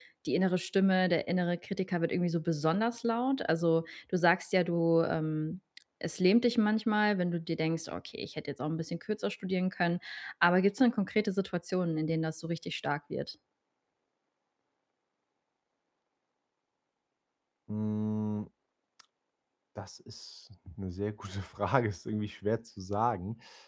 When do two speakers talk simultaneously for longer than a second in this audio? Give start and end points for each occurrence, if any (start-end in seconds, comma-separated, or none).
none